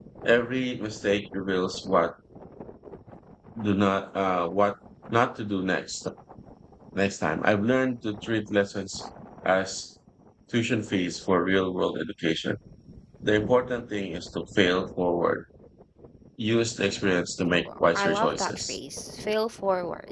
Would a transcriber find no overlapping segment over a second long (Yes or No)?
No